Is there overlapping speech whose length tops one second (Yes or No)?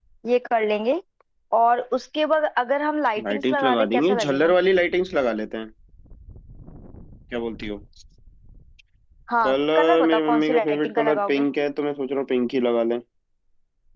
Yes